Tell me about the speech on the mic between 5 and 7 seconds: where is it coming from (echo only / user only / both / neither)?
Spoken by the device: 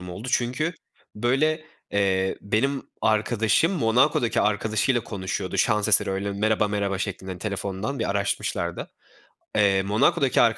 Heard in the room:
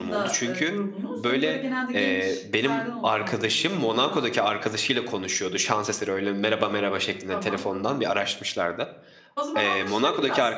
echo only